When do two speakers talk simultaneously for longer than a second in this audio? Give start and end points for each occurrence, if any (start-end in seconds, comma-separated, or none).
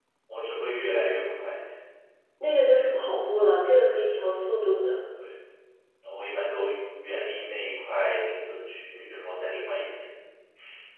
none